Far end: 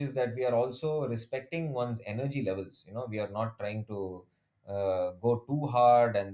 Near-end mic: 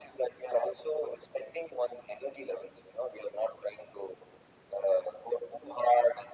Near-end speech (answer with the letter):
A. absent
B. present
A